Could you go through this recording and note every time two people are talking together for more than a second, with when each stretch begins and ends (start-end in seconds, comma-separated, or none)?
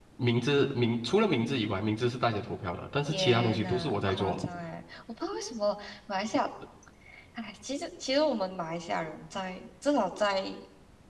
3.1-4.4